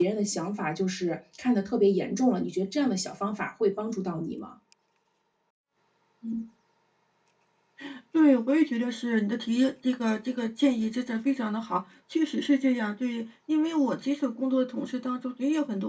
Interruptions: none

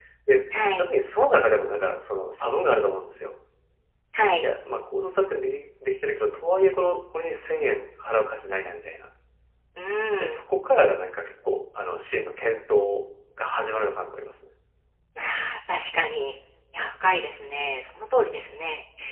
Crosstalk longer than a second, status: none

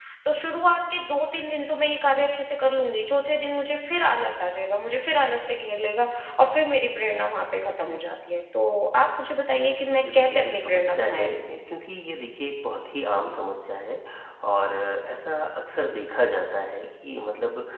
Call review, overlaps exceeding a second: present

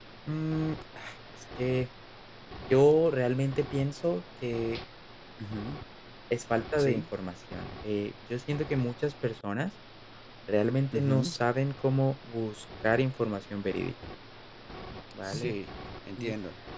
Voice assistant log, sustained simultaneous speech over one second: none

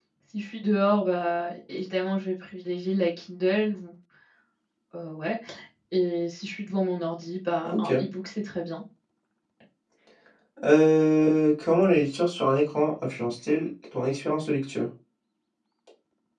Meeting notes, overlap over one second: none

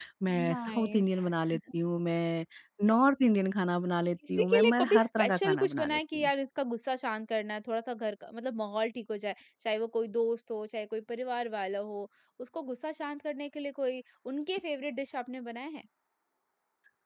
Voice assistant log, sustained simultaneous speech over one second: present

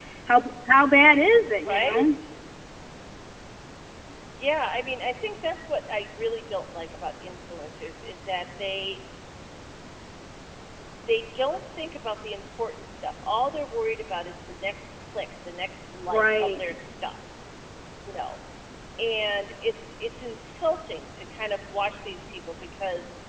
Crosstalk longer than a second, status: none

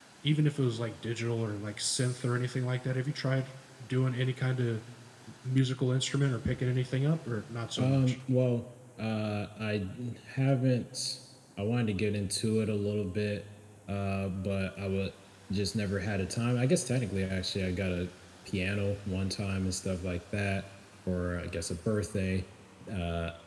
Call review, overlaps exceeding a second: none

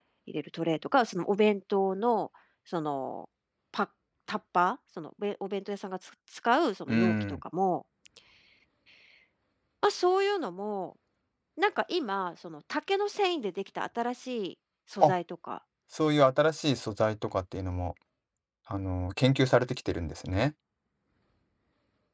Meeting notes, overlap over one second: none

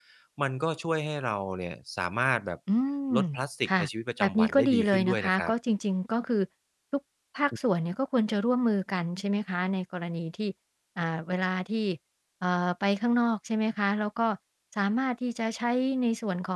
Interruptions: present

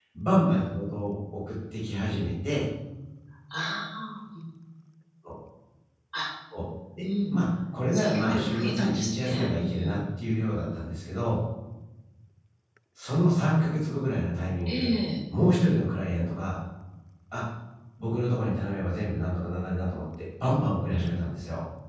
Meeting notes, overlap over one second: present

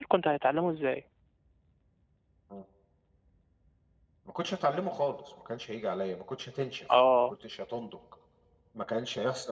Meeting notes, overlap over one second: none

